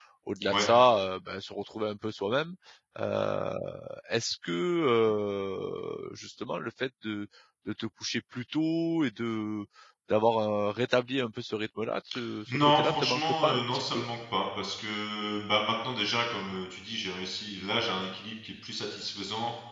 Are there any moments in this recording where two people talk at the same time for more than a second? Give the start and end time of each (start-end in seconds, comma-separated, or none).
12.5-14.0